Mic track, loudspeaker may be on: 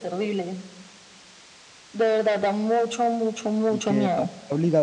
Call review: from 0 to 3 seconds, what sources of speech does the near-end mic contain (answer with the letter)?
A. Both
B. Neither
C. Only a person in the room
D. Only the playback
D